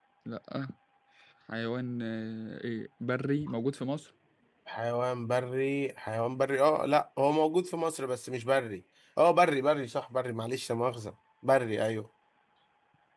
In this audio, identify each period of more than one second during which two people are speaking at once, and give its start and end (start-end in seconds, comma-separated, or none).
none